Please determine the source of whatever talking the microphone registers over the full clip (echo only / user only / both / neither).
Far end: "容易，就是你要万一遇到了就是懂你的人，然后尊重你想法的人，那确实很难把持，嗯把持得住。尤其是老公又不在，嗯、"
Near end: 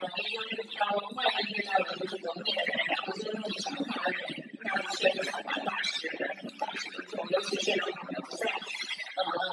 echo only